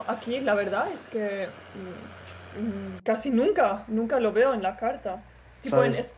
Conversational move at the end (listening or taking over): listening